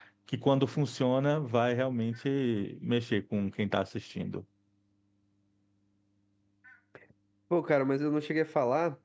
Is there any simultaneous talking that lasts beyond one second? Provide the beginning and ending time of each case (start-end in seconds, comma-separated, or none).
none